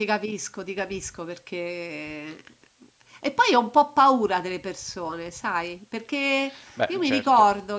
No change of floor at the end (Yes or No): Yes